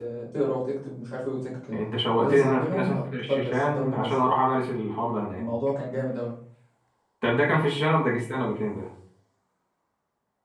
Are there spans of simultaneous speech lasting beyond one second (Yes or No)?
Yes